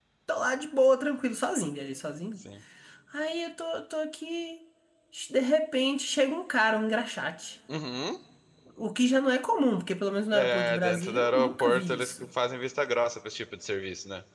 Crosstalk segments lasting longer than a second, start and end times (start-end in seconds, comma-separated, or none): 10.3-12.1